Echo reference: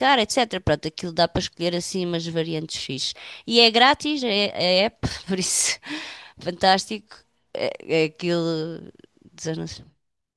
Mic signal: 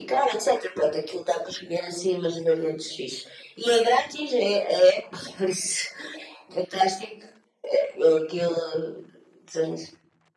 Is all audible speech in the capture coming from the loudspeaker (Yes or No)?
Yes